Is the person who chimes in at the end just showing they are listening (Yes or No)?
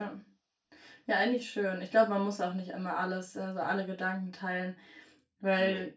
Yes